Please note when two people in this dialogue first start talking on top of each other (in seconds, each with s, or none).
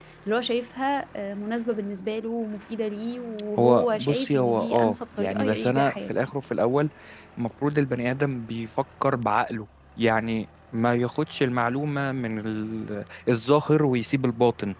3.6 s